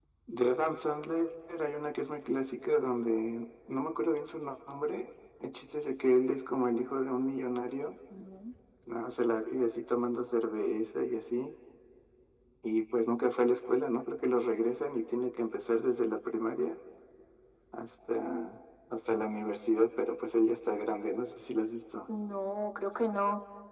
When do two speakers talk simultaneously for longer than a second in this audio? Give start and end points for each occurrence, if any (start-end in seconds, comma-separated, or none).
none